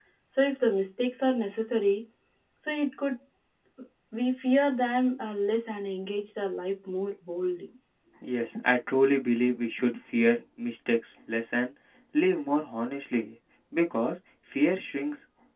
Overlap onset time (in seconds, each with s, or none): none